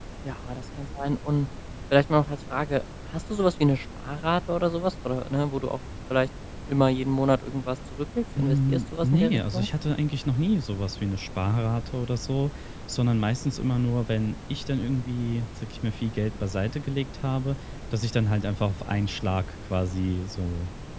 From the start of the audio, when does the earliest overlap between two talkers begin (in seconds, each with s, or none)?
8.4 s